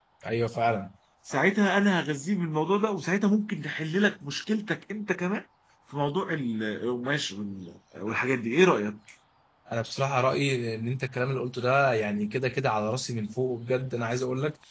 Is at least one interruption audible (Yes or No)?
No